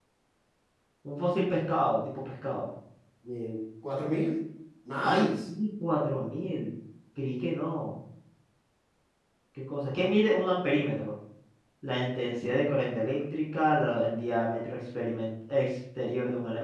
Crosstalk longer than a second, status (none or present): none